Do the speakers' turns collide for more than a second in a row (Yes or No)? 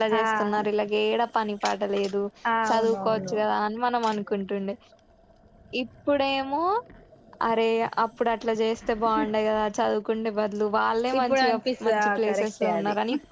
Yes